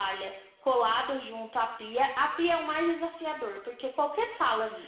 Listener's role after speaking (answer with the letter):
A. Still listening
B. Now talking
A